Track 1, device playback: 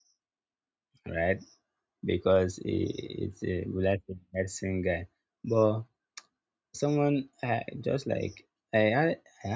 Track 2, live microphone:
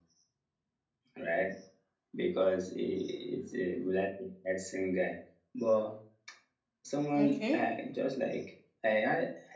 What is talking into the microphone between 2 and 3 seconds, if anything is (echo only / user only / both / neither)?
echo only